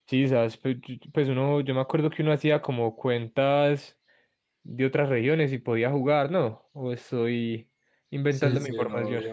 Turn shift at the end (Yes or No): Yes